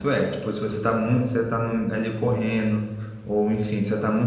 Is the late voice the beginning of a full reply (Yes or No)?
No